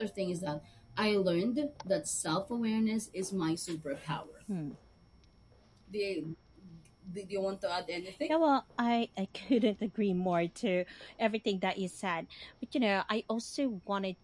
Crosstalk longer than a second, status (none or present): none